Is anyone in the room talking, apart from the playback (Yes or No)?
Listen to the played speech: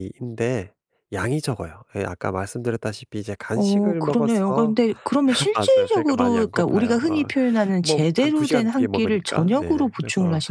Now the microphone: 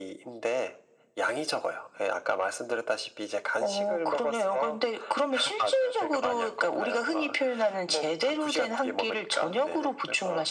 No